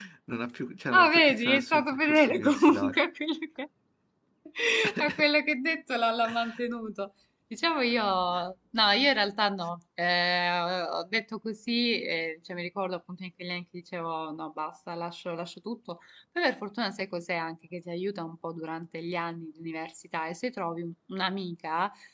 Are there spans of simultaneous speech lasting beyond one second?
Yes, from 0.9 s

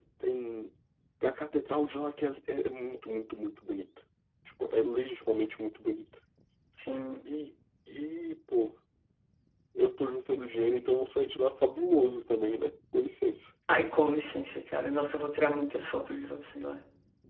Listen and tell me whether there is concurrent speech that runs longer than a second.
No

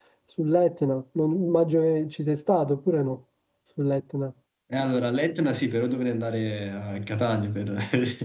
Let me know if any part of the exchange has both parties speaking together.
No

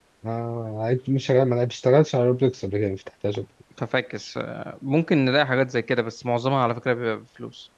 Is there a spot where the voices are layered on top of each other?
No

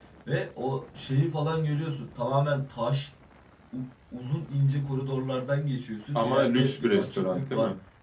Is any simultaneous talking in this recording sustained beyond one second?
Yes, from 6.2 s

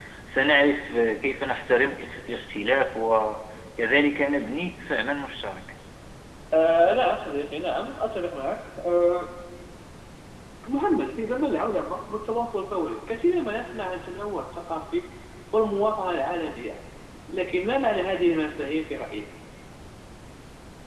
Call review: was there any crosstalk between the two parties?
No

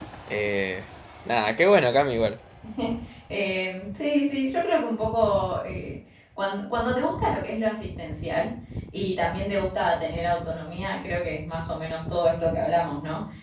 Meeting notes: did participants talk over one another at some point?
No

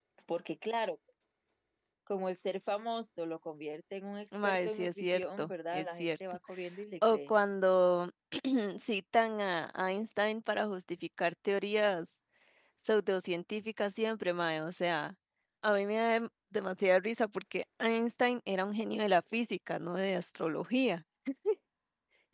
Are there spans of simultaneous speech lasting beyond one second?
Yes, from 4.3 s

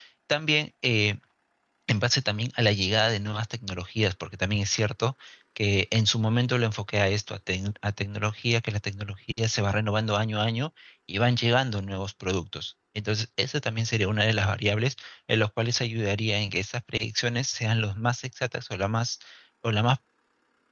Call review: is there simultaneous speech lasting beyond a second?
No

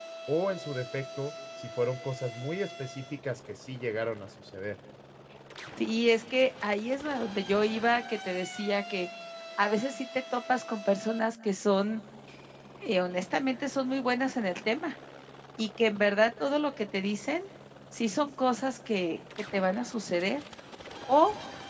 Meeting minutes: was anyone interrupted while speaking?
No

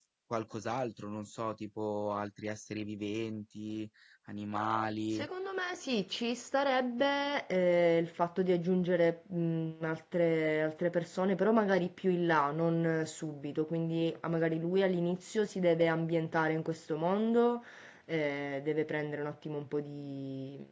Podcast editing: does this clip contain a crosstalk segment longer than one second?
No

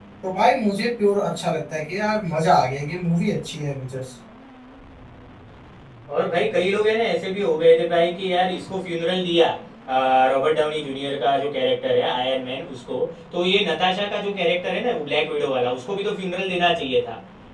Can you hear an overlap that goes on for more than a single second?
No

